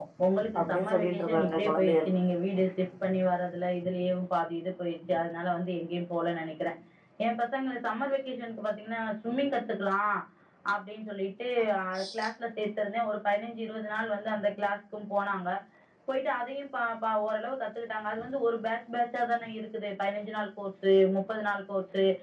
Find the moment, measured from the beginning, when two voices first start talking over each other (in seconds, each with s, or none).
0.6 s